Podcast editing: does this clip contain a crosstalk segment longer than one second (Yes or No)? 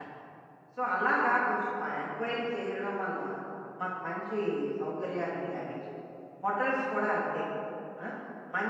No